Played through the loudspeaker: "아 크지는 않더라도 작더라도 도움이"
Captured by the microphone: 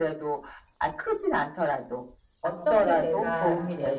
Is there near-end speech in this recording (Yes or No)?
Yes